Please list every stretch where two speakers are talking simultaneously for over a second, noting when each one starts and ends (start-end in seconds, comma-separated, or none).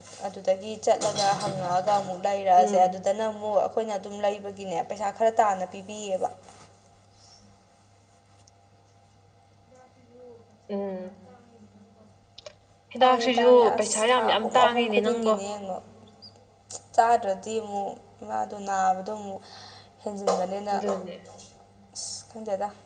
13.0-15.3